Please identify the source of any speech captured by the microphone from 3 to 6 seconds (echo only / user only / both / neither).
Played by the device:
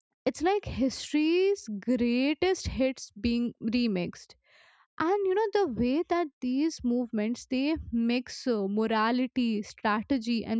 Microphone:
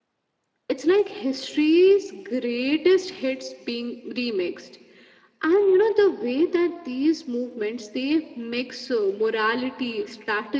echo only